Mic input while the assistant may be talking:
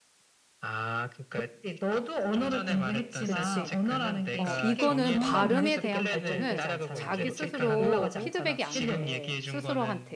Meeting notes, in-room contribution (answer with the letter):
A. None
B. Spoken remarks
B